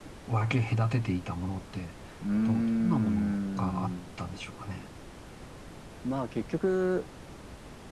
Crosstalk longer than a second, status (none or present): present